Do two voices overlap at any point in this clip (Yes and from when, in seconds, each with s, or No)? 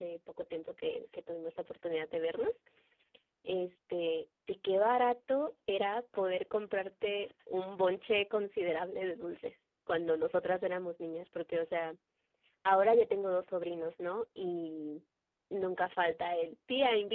No